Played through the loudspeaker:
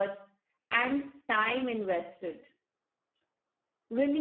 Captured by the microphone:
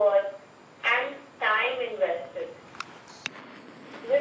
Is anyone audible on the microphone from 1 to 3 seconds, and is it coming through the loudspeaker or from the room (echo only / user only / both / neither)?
echo only